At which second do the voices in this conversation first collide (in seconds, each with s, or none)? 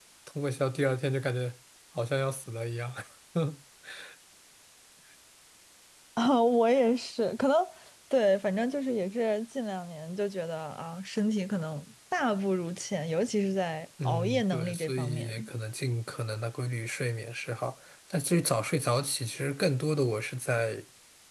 14.0 s